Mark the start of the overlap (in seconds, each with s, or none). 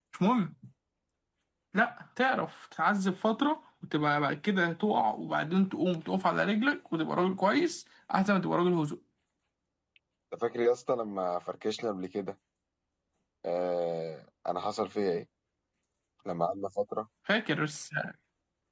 none